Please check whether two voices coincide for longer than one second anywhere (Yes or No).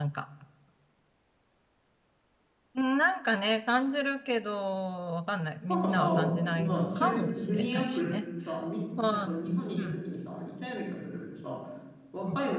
Yes